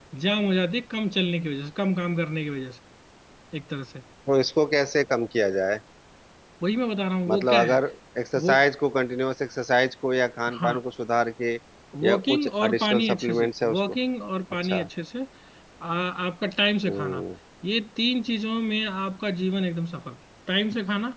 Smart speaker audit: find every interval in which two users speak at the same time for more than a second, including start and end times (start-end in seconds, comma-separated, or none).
12.1-13.8